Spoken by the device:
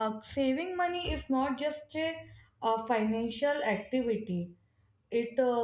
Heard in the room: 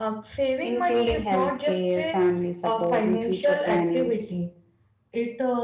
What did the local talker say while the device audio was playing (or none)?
including healthcare, family support and future planning.